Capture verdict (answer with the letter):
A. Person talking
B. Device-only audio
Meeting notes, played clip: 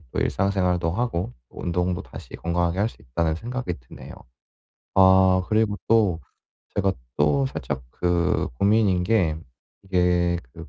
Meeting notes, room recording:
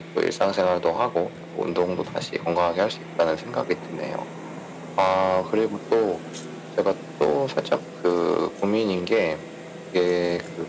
B